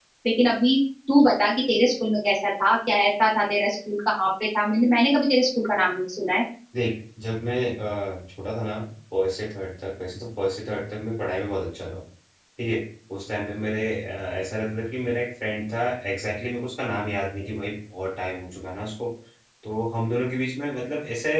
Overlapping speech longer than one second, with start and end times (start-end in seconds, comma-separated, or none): none